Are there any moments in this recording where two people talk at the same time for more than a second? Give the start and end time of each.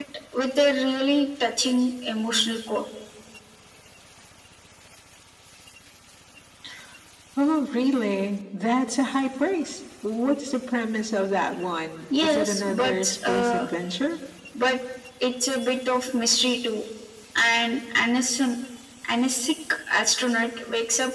12.2-13.7

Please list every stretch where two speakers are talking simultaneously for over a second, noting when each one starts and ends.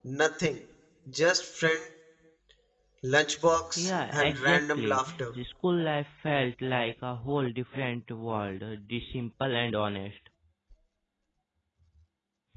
3.8-5.3

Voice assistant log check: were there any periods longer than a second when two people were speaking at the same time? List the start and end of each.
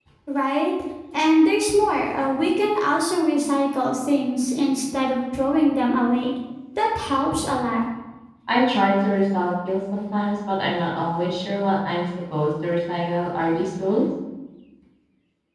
none

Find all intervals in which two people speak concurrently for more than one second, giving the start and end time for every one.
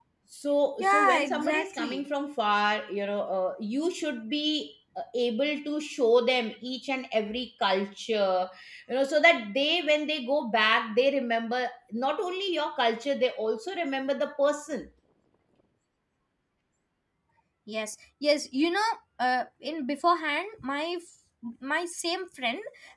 0.8-2.0

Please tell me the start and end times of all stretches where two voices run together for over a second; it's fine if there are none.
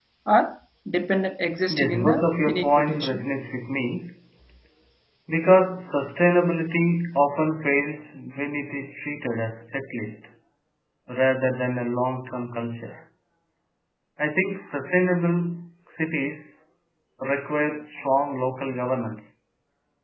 1.7-3.3

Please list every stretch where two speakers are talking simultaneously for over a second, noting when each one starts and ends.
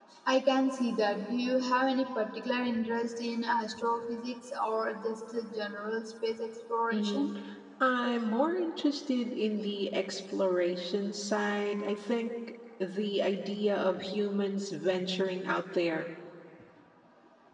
none

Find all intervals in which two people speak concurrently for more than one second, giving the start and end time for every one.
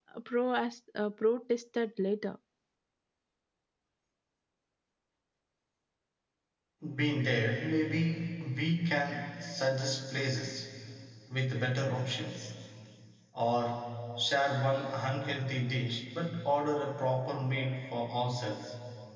none

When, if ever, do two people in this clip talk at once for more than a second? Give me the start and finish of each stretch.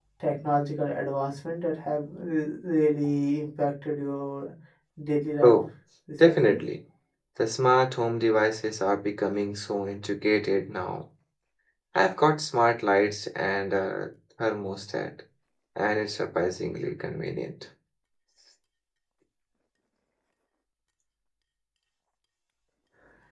none

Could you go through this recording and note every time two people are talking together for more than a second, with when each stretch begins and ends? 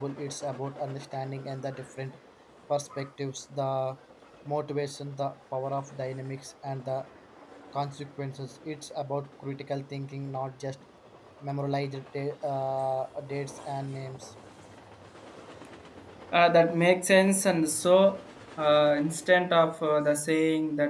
none

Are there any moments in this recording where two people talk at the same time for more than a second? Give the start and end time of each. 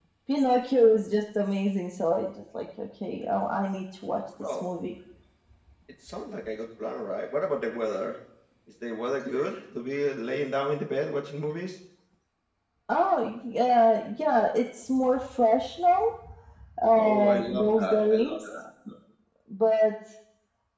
17.0-18.4

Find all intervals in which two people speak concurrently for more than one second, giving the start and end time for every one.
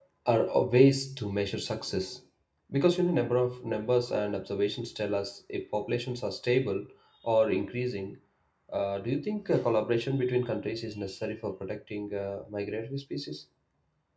none

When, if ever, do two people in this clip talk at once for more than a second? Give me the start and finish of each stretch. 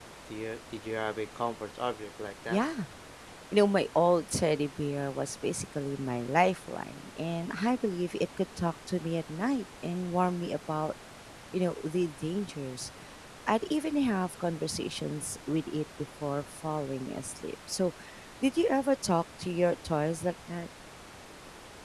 none

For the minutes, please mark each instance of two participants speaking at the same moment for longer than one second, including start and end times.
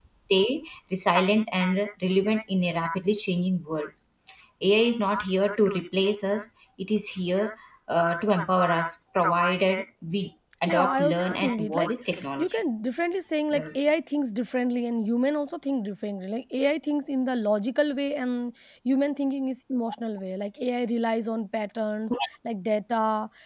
10.7-11.9

